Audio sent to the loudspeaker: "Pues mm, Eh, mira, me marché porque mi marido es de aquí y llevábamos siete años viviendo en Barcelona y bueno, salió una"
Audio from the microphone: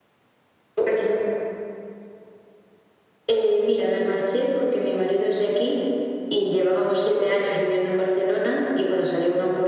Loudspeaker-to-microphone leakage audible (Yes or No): Yes